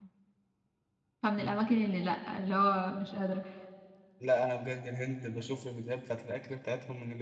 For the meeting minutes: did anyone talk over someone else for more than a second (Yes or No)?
No